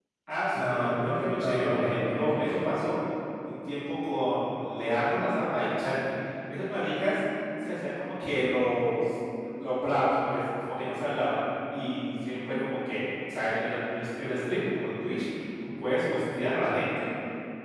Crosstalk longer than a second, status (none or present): present